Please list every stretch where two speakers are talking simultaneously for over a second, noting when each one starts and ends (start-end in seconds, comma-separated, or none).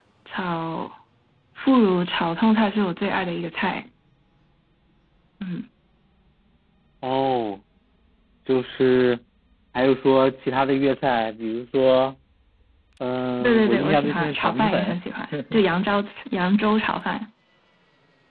13.4-15.0